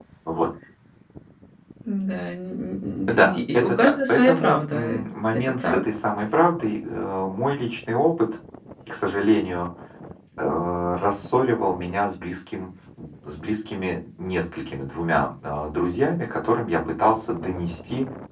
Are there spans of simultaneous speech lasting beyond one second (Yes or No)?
Yes